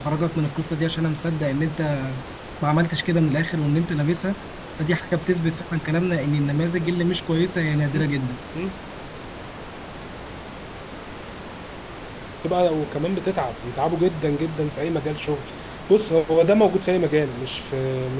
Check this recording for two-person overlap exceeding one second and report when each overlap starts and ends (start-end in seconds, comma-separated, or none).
none